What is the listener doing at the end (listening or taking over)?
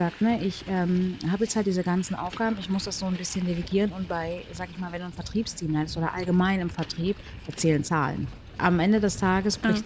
listening